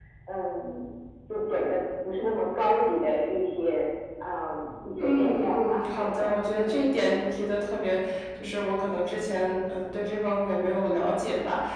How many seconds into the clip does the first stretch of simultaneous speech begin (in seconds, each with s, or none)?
5.0 s